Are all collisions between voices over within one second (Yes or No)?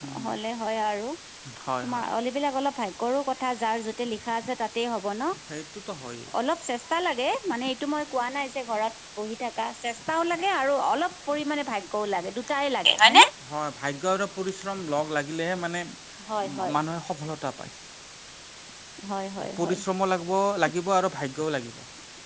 Yes